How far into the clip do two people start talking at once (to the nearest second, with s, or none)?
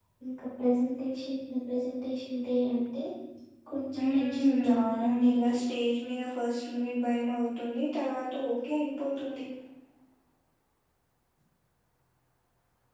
4 s